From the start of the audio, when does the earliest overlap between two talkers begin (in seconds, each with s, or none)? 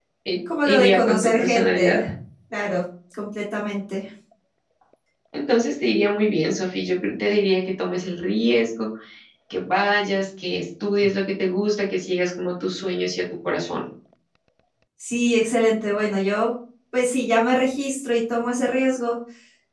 0.7 s